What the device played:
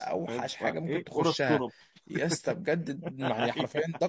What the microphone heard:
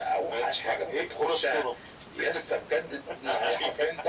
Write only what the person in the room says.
none

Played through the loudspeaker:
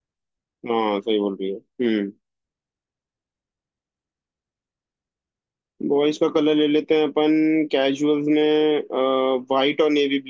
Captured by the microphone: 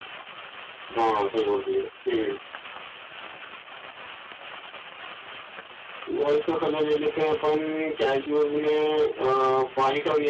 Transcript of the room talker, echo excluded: none

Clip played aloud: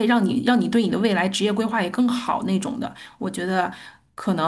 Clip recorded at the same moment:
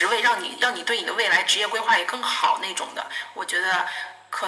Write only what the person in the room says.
none

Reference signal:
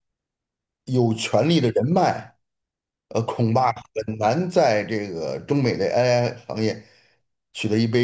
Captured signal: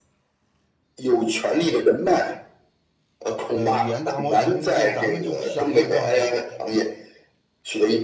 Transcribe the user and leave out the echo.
呃，语言大模型，就咱们就想也不要想，

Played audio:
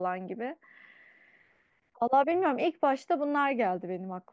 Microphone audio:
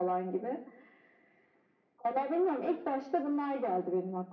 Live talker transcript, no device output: none

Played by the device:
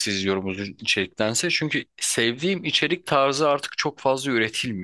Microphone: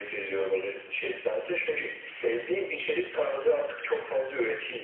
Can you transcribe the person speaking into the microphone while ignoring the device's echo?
none

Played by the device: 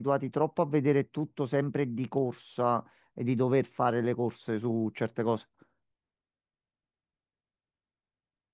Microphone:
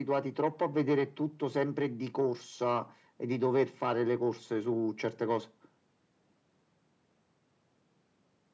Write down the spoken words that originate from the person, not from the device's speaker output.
none

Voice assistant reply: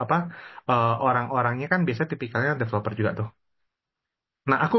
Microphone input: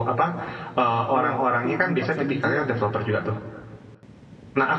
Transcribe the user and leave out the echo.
Iya, tapi dipaksa menjilat kan ya.

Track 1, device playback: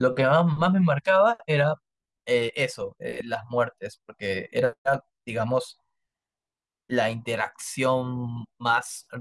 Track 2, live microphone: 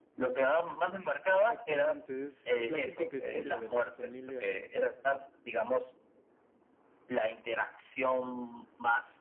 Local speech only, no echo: exactamente. Es la típica historia de la familia

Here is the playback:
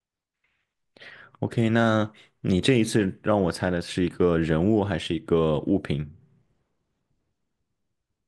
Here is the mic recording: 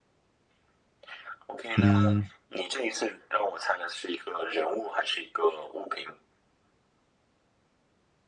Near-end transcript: 嗯

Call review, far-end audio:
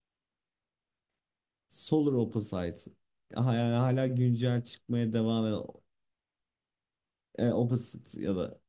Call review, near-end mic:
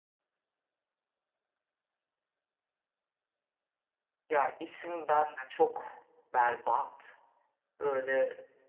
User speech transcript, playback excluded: Ya isim ben de çok berbat. Böyle

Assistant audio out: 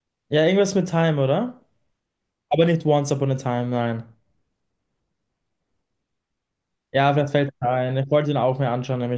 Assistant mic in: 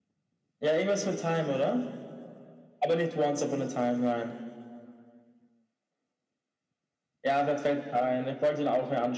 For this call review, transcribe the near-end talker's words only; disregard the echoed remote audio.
none

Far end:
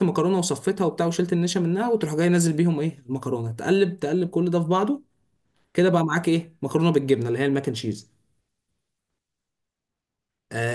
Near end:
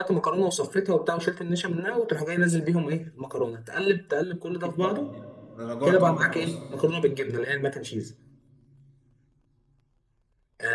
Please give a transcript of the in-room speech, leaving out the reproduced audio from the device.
أكيد طبعا يعني أنا جوعت وأنت بتوصل

